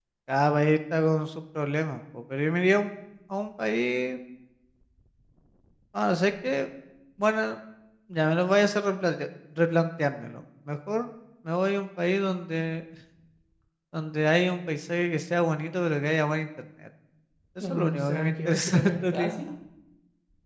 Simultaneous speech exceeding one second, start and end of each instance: 17.6-19.4

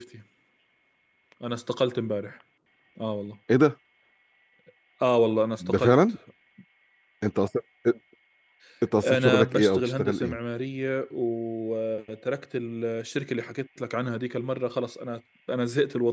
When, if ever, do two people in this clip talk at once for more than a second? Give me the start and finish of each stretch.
9.0-10.4

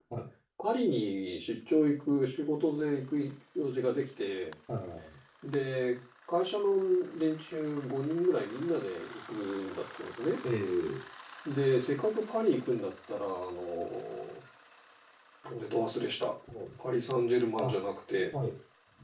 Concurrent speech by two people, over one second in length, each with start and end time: none

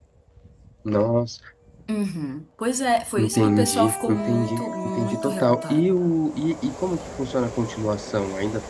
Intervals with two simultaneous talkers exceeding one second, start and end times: 3.2-6.0

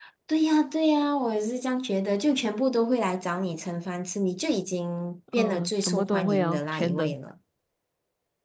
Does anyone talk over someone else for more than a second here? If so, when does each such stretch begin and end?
5.3-7.1

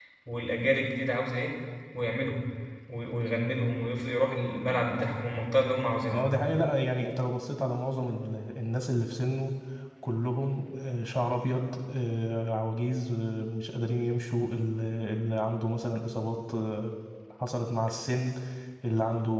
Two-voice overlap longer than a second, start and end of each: none

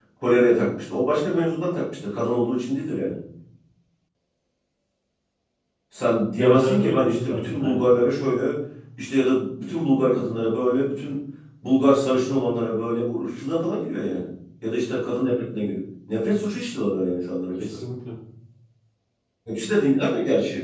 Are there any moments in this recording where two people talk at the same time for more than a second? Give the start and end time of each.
6.4-7.9

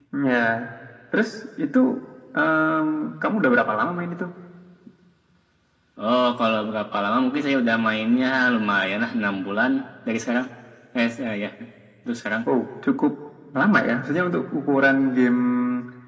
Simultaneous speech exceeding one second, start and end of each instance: none

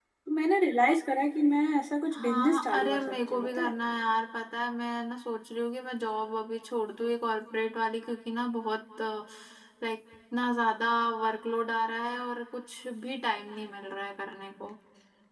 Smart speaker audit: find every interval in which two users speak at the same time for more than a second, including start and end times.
2.1-3.7

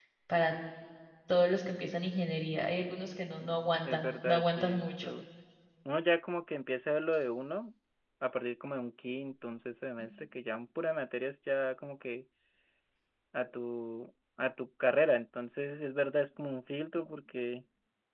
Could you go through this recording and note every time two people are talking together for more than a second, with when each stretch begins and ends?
3.9-5.2

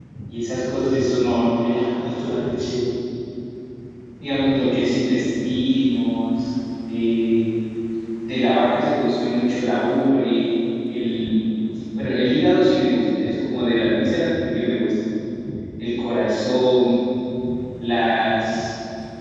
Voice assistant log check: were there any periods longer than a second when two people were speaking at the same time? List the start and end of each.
none

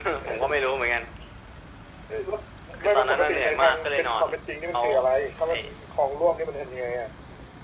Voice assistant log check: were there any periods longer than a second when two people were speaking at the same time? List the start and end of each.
2.8-4.3

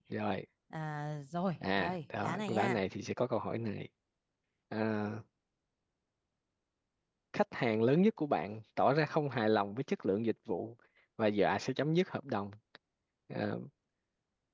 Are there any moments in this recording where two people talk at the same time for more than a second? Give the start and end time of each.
1.6-2.8

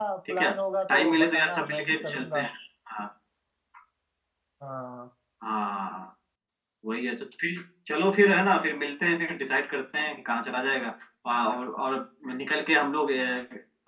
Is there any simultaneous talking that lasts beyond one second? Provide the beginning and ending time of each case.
0.9-2.4

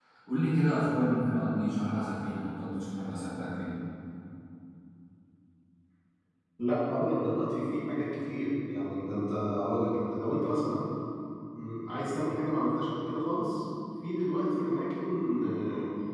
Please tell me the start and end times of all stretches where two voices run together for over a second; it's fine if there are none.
none

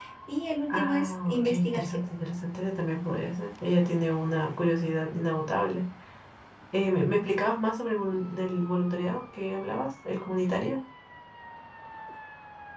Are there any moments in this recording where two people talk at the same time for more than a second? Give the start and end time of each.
0.7-2.0

